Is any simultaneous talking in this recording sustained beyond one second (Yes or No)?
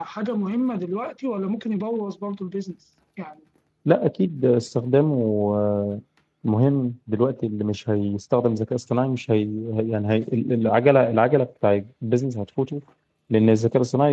No